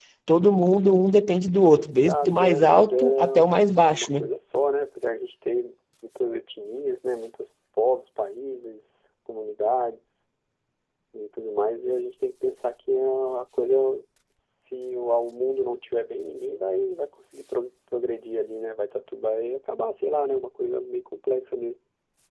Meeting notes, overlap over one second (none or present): present